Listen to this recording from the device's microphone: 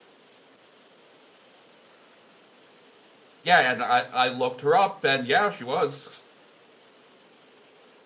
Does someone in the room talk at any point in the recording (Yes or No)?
Yes